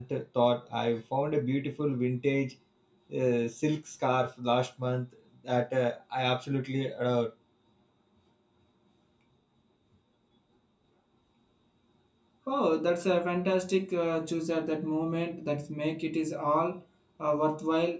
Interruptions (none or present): none